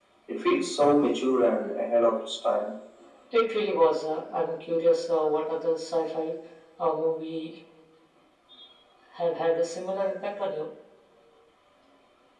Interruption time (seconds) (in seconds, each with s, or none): none